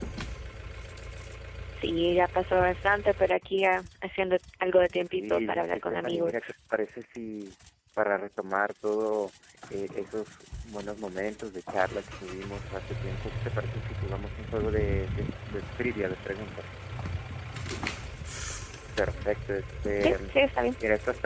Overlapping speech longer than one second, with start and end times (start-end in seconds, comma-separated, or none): 5.1-6.3